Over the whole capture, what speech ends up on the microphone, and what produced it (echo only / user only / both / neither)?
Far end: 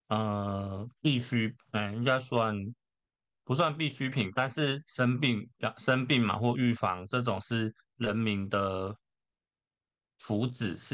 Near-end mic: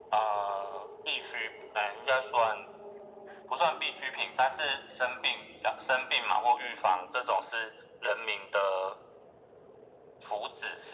echo only